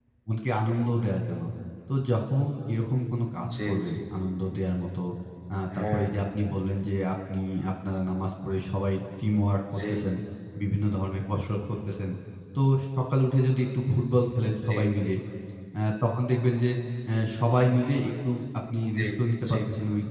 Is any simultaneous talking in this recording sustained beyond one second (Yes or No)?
No